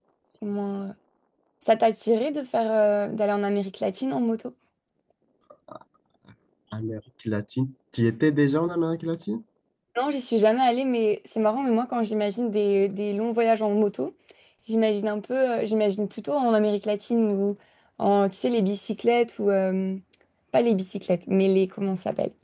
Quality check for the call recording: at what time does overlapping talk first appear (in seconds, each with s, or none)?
none